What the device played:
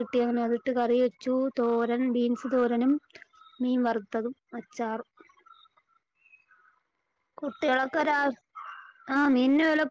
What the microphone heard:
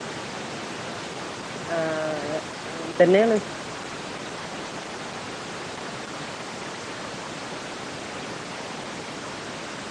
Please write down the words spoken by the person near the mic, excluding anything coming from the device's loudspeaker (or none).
ആ അതെ അങ്ങനെ തന്നെയാണ്